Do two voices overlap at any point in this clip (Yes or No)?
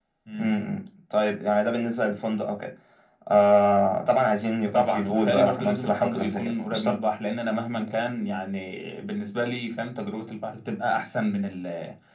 Yes